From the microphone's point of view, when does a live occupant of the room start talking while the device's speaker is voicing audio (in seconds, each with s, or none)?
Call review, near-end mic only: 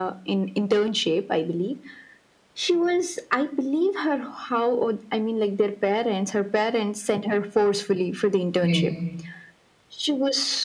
8.6 s